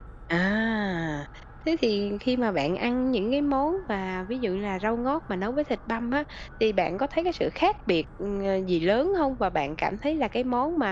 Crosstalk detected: No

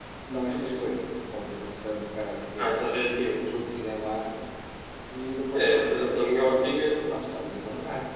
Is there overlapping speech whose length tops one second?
No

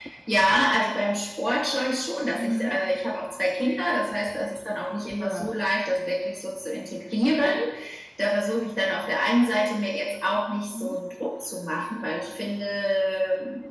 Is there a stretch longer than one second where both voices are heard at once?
No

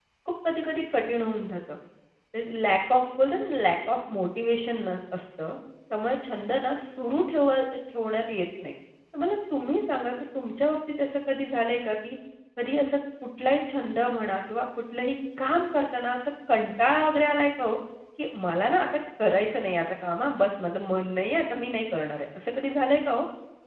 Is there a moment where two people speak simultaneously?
No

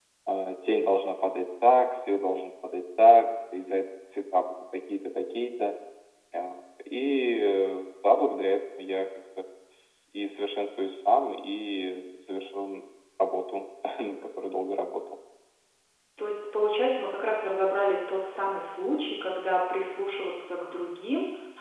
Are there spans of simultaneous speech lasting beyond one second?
No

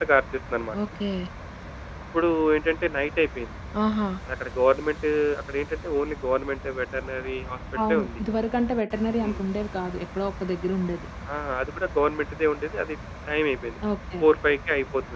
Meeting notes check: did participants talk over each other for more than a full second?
No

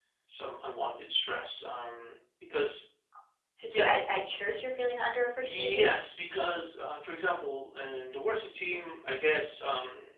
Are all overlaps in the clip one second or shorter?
Yes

